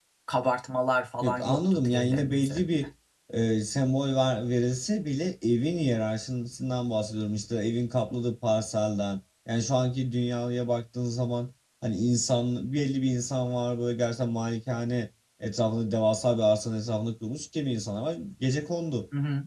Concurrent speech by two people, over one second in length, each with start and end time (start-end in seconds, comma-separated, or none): 1.2-2.7